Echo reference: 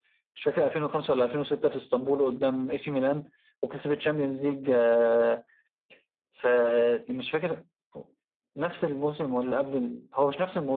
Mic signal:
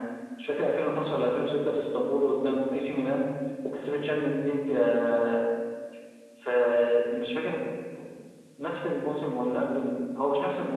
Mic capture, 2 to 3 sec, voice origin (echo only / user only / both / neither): echo only